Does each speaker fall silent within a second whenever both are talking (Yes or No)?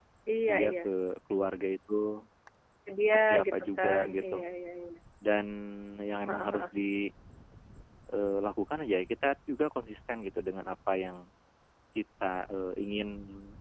No